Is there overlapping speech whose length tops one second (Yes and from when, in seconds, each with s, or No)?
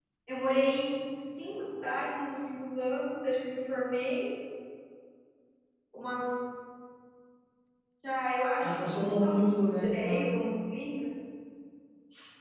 Yes, from 8.6 s